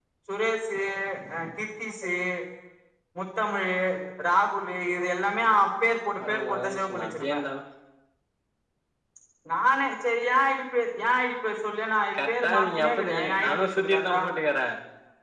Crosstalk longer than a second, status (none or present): present